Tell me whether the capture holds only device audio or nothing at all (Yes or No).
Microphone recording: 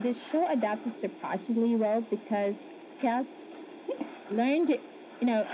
Yes